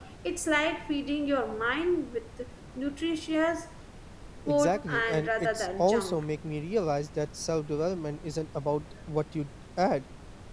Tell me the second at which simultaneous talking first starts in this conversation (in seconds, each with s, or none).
4.5 s